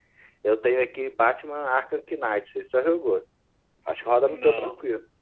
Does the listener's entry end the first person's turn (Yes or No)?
Yes